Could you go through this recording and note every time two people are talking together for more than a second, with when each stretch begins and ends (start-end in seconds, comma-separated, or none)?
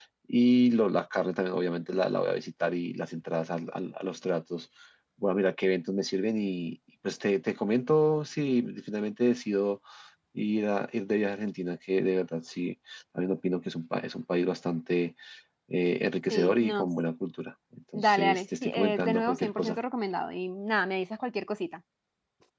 17.9-19.8